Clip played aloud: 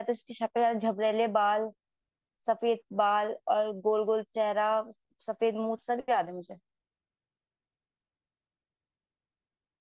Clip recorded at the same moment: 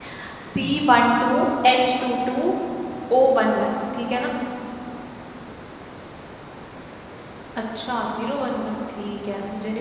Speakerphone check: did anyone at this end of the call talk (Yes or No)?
Yes